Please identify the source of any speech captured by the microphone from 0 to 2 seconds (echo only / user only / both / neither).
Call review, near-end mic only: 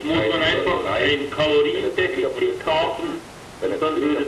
echo only